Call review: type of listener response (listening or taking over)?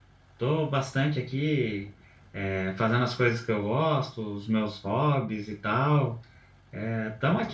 taking over